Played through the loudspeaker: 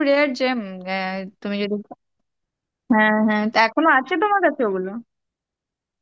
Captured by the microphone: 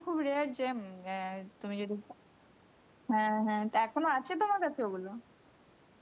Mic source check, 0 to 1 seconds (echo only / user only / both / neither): echo only